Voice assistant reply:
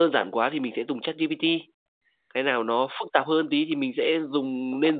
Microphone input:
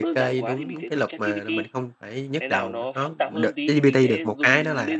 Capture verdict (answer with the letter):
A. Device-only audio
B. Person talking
B